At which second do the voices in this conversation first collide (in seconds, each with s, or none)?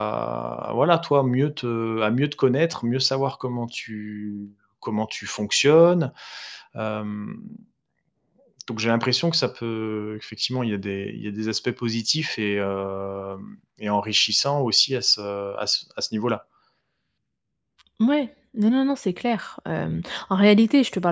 none